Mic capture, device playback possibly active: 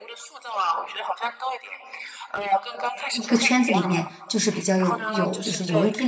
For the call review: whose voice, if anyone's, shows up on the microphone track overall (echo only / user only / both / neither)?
both